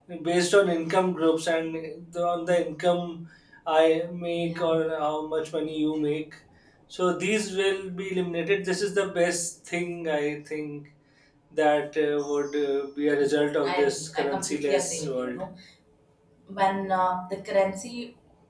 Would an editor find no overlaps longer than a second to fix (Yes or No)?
No